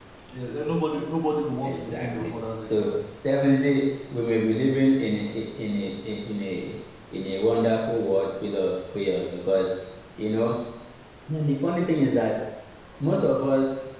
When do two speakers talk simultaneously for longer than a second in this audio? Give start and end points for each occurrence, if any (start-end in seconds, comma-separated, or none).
1.6-3.0